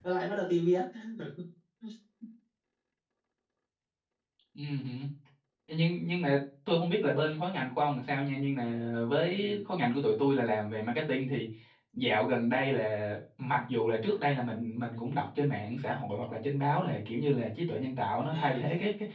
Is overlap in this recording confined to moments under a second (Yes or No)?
Yes